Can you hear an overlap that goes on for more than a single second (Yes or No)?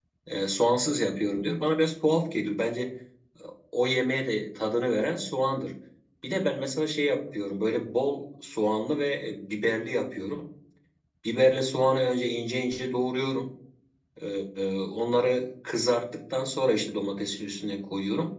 No